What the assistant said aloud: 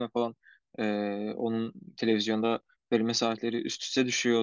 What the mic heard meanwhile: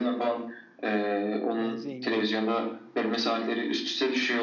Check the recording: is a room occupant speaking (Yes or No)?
Yes